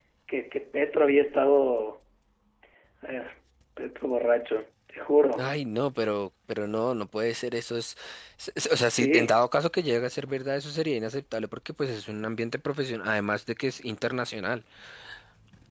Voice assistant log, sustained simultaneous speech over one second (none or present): none